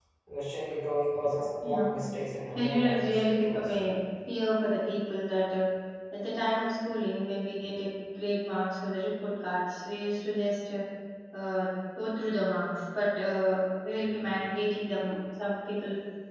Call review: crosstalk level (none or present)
present